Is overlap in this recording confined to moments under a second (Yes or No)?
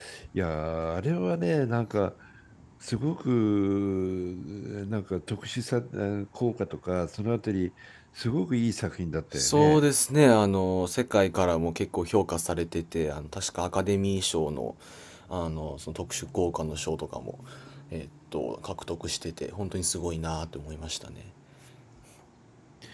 Yes